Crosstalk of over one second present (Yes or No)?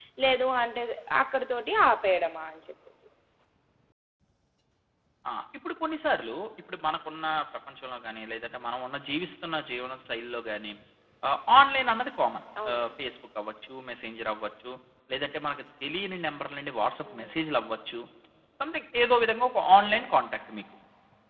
No